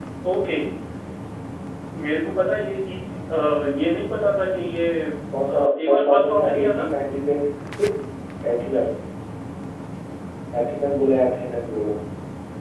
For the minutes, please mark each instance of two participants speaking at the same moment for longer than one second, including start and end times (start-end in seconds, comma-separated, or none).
5.5-6.8